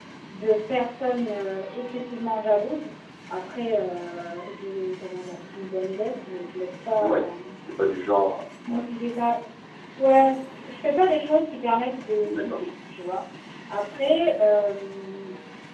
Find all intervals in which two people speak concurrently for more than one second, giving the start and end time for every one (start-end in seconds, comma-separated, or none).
none